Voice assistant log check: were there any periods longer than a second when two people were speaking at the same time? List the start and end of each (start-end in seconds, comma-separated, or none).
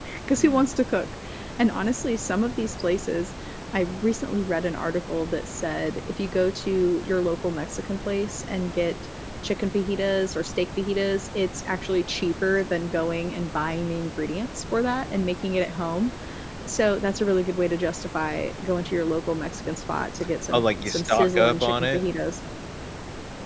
20.5-22.0